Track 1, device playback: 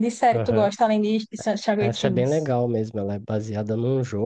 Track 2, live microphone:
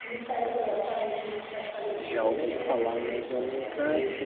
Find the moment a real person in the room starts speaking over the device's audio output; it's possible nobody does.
2 s

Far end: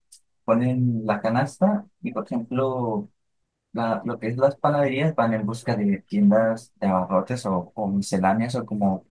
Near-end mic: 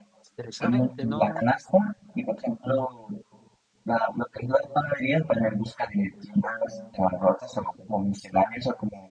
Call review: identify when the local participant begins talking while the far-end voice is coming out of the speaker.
0 s

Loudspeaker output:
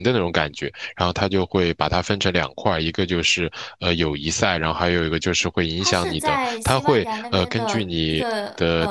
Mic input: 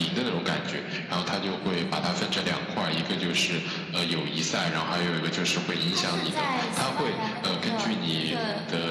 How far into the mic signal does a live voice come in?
none

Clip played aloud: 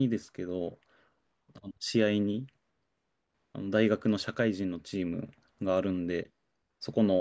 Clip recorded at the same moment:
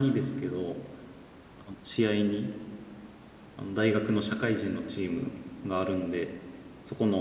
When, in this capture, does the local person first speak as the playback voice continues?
none

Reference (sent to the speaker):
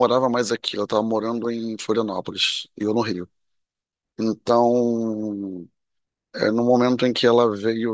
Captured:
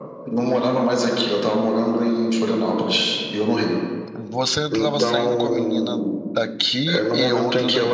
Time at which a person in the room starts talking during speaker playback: 4 s

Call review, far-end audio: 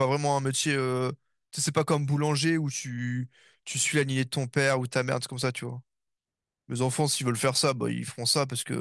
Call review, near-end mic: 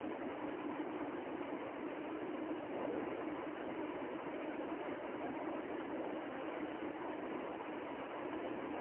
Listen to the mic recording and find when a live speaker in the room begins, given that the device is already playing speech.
none

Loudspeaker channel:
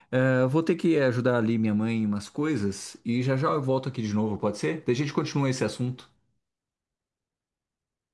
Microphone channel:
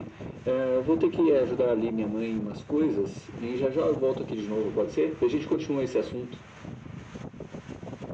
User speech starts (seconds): none

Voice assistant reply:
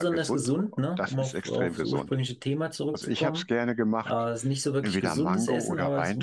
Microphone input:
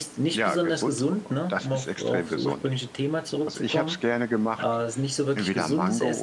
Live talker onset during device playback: none

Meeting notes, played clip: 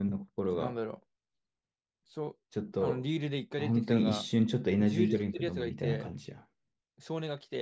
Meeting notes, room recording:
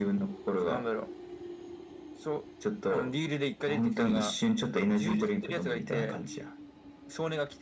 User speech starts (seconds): none

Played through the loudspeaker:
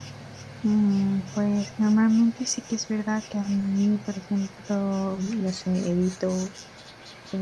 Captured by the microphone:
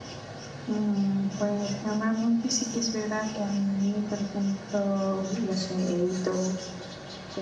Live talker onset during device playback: none

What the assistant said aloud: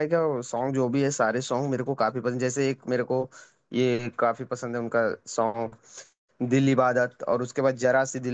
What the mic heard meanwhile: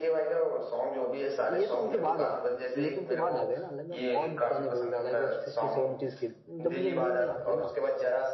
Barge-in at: 2 s

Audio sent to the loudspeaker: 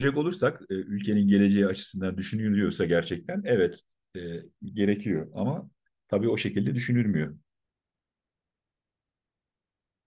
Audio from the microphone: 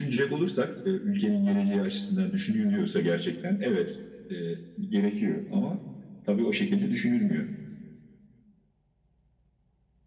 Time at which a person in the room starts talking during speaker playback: none

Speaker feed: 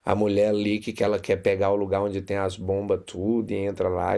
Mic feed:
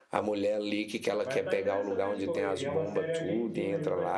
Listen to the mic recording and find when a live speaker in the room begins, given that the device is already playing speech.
1 s

